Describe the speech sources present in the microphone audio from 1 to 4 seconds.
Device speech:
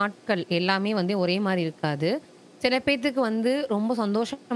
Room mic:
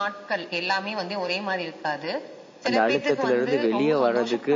both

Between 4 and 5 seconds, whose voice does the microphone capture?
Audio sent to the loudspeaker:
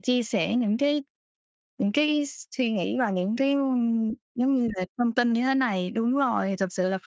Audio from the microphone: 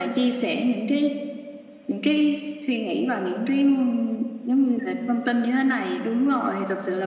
echo only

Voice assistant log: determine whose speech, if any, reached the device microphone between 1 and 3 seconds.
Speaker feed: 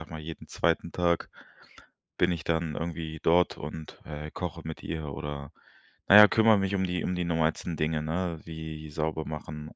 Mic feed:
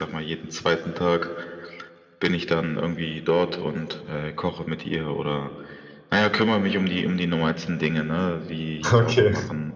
echo only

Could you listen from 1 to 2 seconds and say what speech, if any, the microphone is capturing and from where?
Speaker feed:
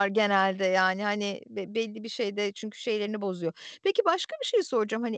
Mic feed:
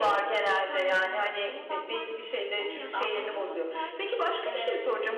both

